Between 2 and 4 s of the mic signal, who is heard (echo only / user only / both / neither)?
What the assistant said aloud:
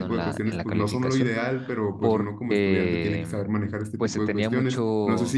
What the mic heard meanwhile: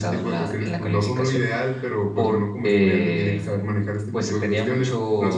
echo only